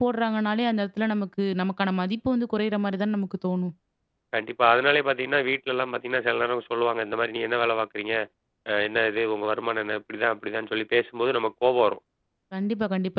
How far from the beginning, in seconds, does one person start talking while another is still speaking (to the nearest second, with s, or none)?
none